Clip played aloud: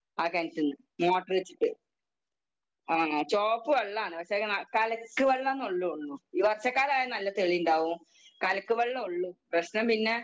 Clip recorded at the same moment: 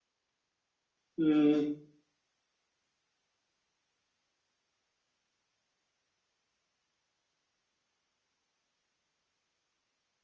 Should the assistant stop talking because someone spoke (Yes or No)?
Yes